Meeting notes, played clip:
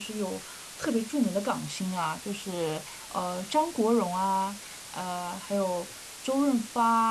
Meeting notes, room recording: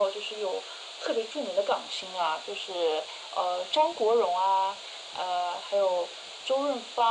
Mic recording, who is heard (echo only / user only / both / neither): echo only